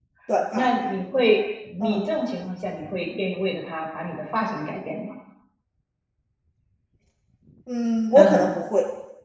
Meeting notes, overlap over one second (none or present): none